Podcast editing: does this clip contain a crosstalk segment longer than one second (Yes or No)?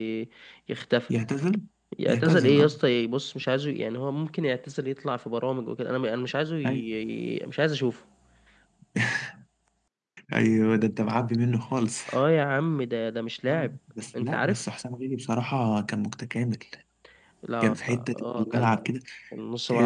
Yes